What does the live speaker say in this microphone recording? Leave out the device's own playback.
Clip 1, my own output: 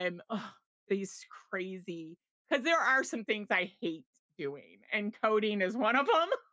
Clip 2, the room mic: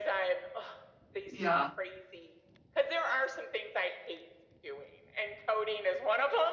Yeah.

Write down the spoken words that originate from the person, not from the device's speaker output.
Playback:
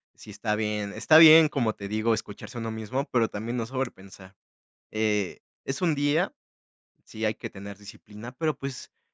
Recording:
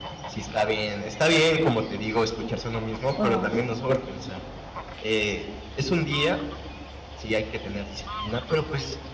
Oh.

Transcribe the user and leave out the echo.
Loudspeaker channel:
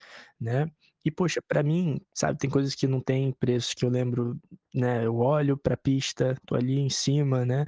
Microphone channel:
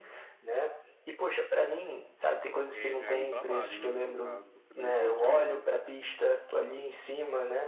eh, já é um trabalho, não é, no caso, você mesmo mencionou, né.

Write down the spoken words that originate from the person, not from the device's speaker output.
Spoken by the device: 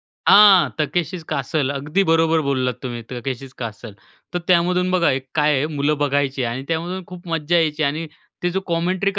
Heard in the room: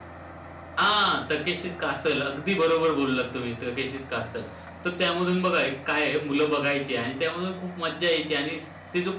none

